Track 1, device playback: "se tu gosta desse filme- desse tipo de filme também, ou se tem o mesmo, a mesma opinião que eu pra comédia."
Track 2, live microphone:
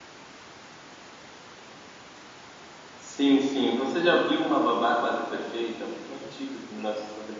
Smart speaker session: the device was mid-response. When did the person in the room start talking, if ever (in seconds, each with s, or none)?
2.9 s